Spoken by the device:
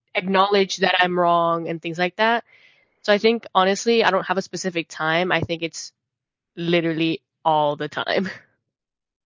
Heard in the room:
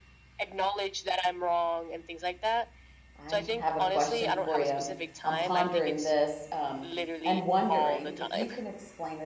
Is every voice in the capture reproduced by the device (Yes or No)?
No